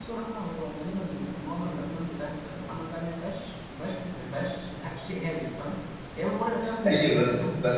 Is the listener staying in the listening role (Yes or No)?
No